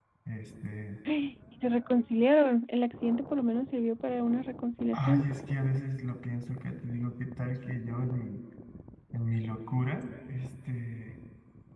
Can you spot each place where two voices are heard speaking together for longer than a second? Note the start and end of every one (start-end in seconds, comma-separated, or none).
none